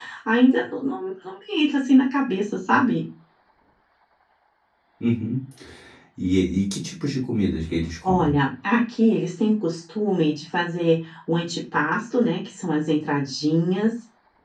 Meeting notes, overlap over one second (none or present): none